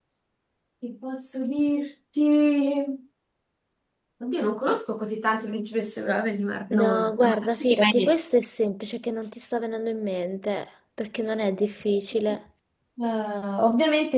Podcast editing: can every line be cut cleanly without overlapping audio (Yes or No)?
No